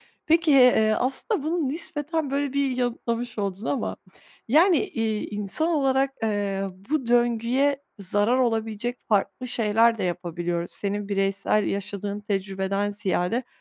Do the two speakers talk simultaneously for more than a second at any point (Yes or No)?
No